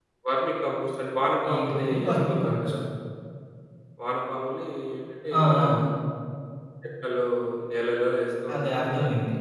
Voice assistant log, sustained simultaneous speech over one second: present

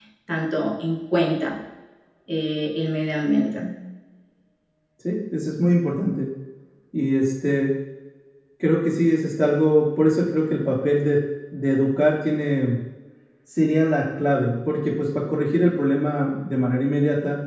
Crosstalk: none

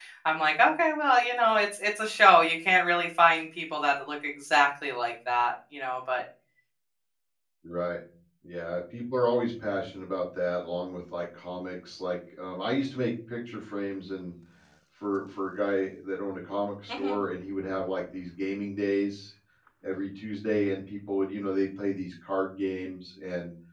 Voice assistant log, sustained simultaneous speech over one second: none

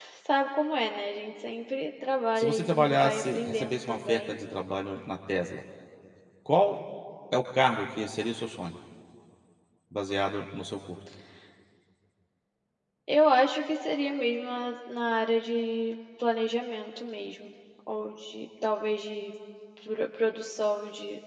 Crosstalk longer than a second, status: present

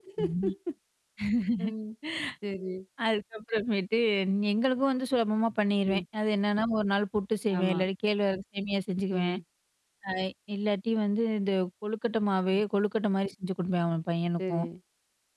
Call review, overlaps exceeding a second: none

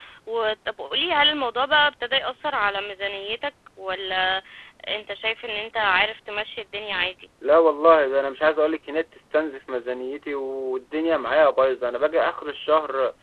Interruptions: none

